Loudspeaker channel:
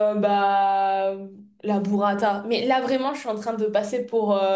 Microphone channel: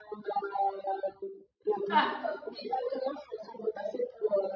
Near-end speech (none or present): present